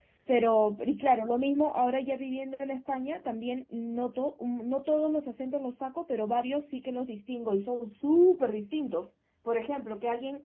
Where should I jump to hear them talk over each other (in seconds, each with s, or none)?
none